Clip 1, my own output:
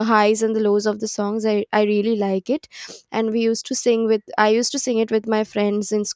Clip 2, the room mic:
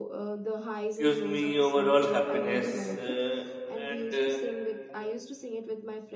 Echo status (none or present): present